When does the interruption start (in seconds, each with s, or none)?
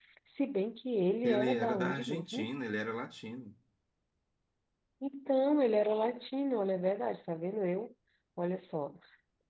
1.2 s